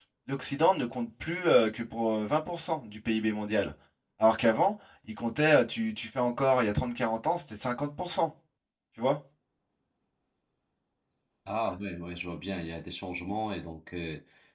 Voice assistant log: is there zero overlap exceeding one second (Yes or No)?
Yes